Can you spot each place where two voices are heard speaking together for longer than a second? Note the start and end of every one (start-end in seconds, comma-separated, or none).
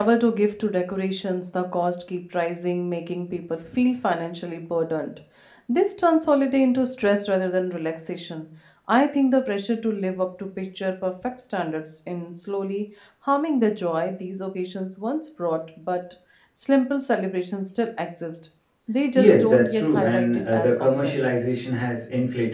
19.1-21.2